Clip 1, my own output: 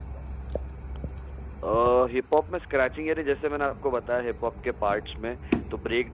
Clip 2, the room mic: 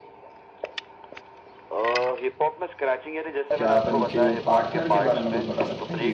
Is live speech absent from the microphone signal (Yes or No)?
No